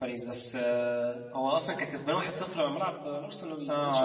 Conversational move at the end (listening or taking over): taking over